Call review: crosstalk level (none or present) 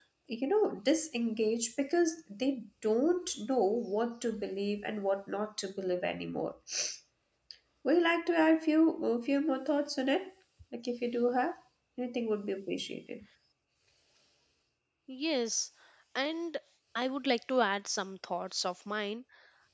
none